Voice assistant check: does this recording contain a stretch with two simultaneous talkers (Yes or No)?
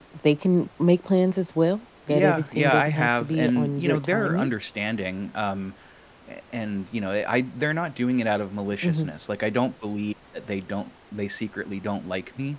Yes